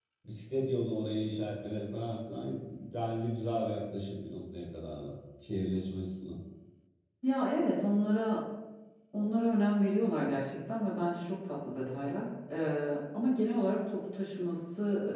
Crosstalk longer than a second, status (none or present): none